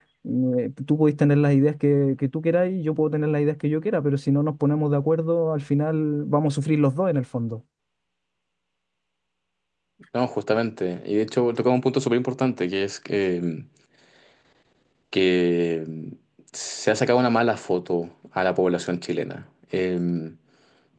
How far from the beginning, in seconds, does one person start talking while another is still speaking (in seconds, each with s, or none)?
none